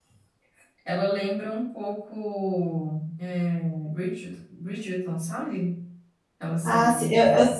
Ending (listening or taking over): taking over